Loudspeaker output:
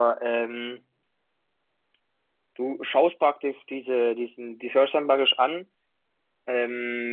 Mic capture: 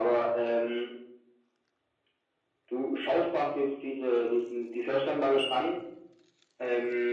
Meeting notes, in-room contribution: none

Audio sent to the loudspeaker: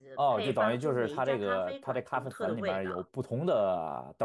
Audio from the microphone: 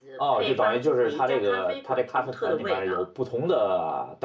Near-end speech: none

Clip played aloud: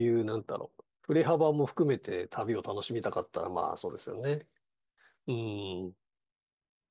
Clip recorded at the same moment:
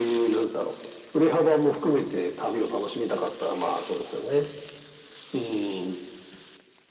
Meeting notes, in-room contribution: none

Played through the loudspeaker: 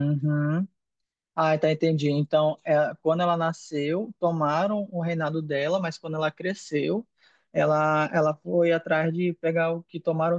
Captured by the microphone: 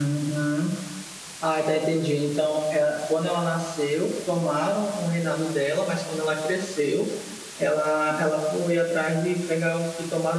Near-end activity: none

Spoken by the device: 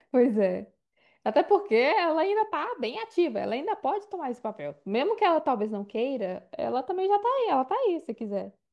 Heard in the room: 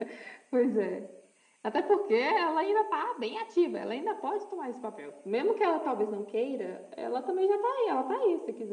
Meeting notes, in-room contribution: none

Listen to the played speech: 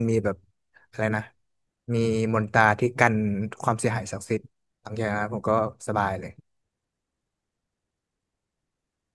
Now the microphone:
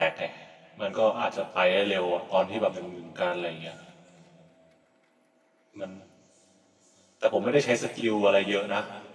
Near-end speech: present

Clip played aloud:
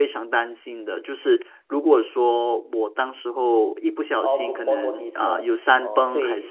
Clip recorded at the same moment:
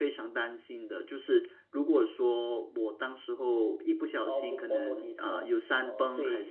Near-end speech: none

